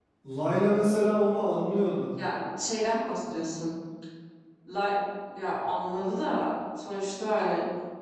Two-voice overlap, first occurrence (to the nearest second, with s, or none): none